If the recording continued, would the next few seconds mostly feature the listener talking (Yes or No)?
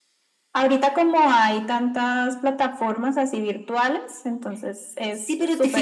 Yes